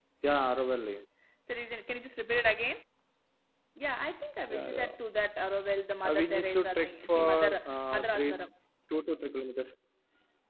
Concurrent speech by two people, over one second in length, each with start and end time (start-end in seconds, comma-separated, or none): 6.0-8.3